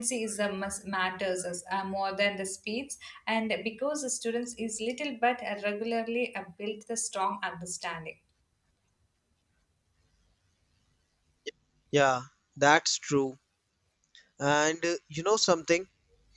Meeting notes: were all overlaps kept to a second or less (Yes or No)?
Yes